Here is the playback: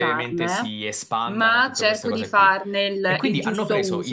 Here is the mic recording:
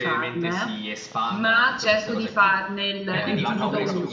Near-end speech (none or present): present